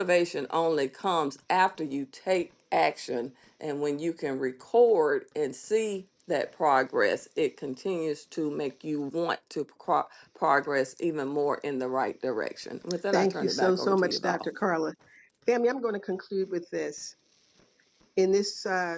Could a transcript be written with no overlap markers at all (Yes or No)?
No